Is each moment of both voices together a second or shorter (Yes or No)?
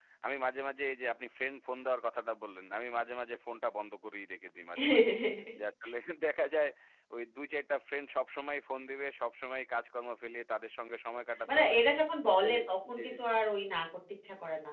Yes